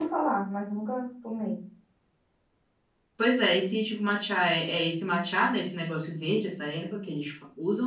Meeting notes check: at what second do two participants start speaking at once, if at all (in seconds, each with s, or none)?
none